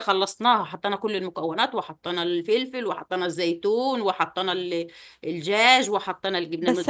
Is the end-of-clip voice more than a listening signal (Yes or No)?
Yes